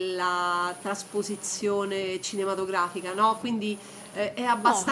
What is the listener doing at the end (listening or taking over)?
listening